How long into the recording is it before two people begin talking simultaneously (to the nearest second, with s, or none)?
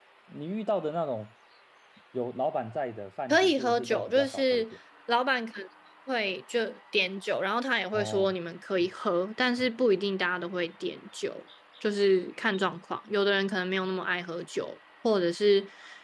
3 s